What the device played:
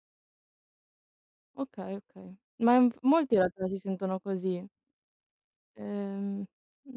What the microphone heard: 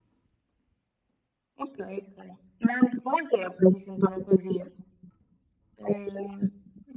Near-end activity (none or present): none